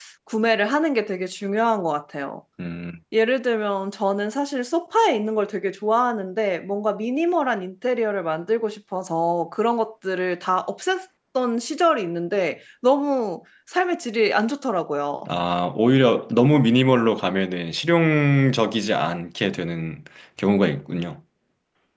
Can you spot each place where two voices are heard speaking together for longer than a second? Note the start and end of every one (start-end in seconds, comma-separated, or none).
none